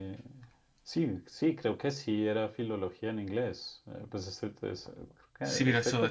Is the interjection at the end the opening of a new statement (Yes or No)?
Yes